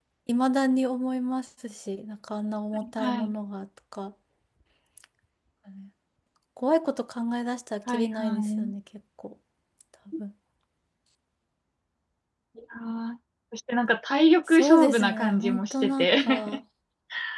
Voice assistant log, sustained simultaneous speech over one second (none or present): present